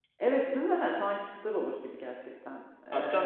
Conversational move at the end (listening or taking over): taking over